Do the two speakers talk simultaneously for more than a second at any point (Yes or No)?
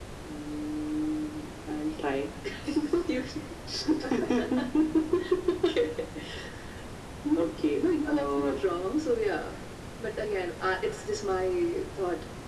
Yes